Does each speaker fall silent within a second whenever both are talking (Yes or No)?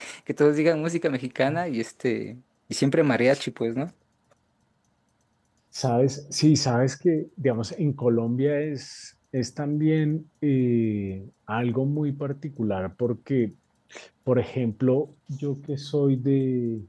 Yes